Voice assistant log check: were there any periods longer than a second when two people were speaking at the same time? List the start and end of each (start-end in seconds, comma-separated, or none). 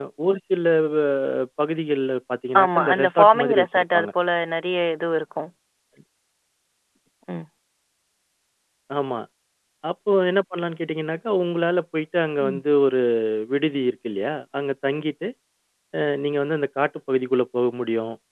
2.6-4.1